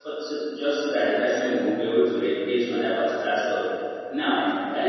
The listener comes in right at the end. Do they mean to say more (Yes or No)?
No